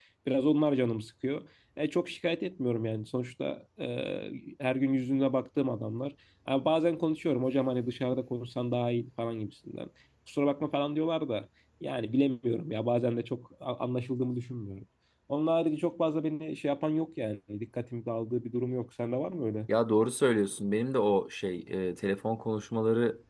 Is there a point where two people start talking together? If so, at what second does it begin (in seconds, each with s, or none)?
none